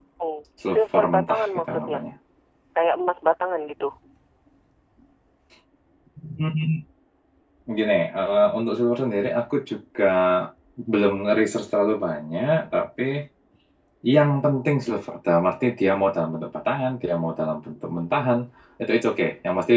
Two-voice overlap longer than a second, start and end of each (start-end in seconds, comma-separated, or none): 0.7-2.0